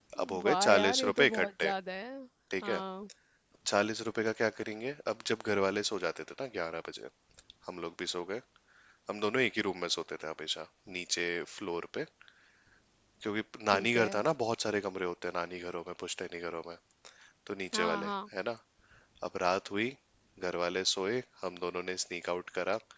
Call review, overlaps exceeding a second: present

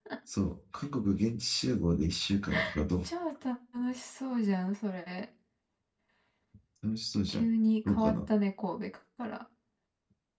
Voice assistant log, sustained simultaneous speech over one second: none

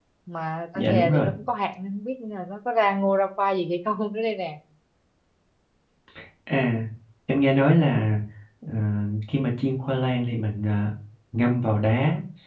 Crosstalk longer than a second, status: none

